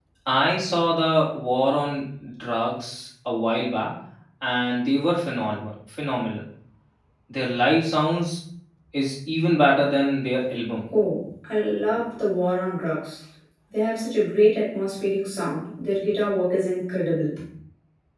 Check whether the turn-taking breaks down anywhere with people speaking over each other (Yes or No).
No